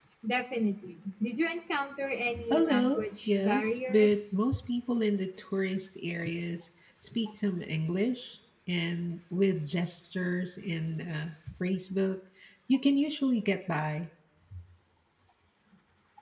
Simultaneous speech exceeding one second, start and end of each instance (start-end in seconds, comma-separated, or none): 2.5-4.2